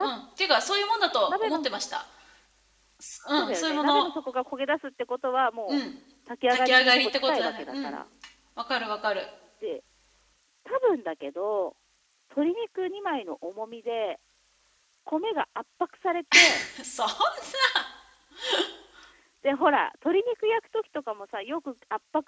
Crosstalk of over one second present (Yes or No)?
Yes